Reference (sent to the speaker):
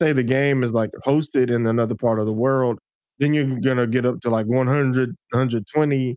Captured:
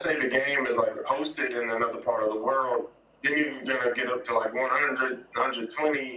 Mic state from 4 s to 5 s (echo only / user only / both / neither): echo only